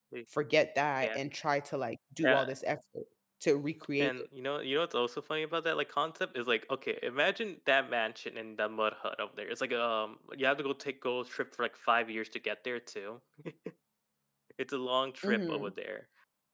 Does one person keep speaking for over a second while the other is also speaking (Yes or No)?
No